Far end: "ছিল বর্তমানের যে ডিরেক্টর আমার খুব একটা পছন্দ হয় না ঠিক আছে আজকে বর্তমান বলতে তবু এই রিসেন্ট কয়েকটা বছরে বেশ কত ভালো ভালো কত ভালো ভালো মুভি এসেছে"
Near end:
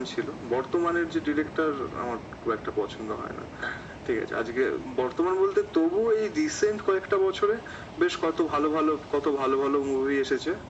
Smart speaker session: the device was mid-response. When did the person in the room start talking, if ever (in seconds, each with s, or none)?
none